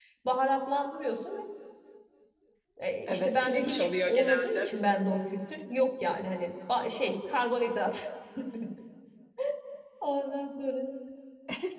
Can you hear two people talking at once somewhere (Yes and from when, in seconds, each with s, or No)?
Yes, from 3.1 s